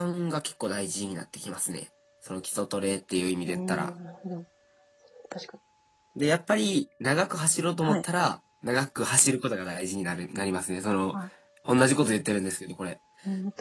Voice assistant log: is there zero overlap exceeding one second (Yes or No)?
Yes